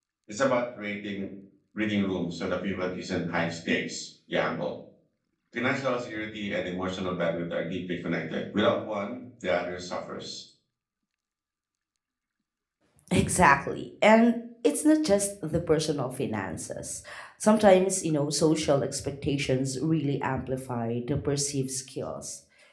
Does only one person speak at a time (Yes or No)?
Yes